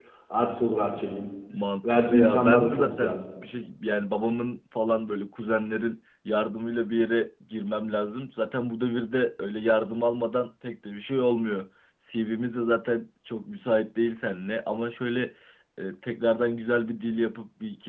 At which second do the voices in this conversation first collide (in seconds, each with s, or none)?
1.8 s